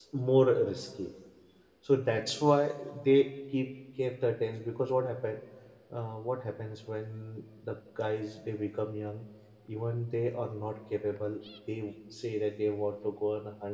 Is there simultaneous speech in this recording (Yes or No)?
No